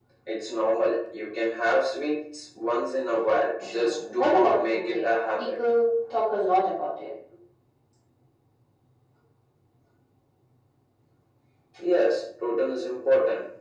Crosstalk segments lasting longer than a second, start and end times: 3.6-5.5

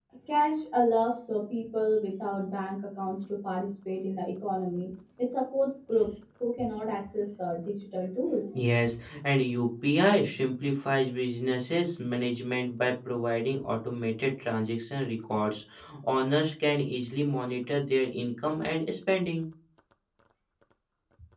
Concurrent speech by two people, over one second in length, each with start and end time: none

